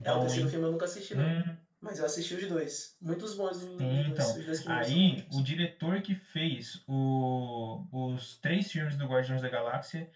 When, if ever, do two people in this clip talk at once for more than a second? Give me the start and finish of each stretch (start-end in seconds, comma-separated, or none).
3.8-5.4